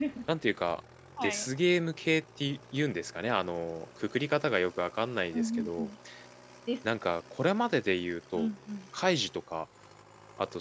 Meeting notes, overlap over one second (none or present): none